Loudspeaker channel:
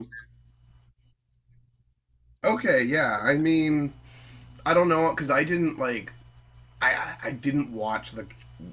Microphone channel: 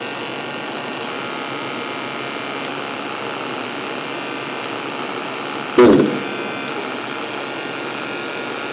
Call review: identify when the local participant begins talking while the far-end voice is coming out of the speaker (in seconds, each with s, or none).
5.8 s